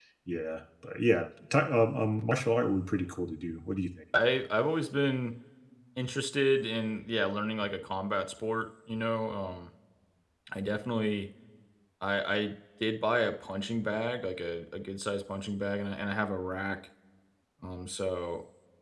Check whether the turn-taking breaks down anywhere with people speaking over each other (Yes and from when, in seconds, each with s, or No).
No